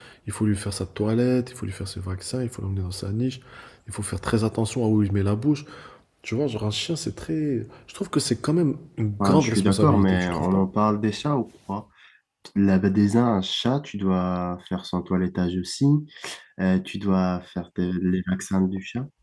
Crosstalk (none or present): present